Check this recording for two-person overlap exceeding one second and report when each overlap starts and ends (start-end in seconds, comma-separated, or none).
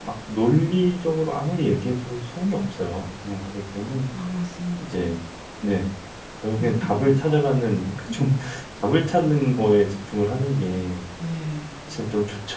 none